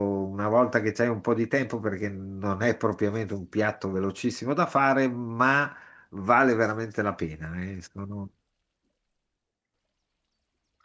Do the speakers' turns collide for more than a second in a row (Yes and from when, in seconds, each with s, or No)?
No